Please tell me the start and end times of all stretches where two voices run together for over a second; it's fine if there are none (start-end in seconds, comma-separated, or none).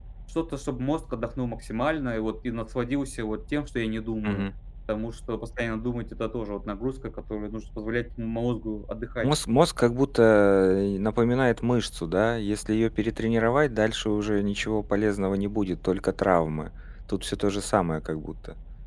none